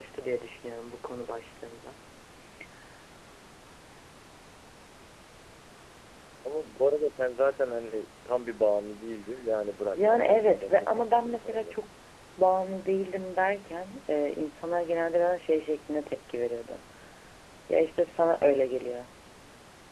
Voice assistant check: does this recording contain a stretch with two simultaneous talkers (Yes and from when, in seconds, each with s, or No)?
Yes, from 9.9 s